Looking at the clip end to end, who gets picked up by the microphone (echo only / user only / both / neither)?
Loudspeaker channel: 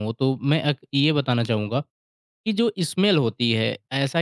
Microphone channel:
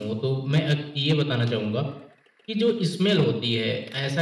echo only